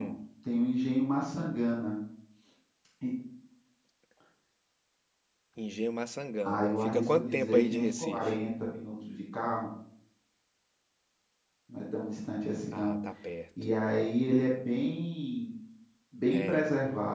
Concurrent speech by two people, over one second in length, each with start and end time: 6.4-8.3

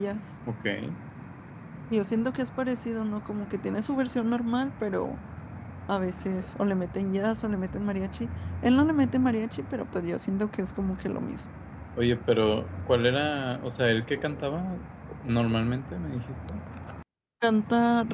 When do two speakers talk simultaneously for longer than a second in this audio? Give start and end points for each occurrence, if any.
none

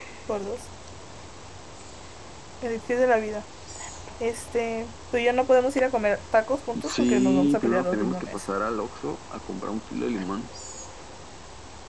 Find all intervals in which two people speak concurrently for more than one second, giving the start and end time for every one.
6.8-8.5

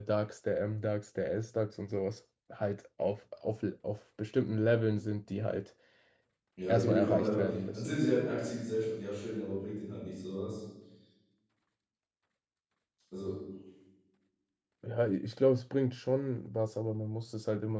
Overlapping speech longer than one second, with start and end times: 6.7-8.0

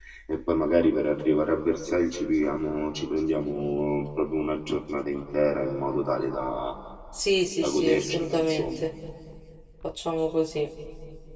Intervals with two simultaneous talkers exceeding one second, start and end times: 7.5-8.9

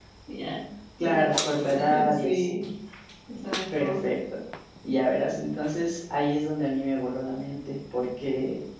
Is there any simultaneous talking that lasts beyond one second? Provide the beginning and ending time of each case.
1.0-2.5

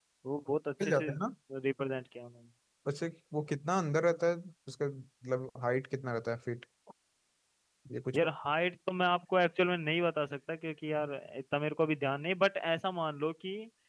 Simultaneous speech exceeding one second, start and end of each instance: none

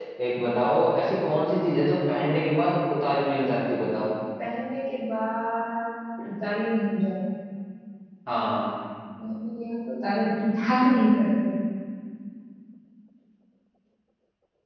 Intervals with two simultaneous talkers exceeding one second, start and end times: none

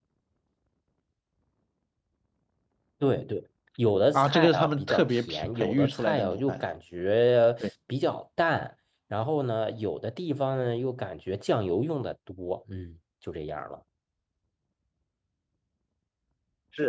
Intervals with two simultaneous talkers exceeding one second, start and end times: 4.1-6.6

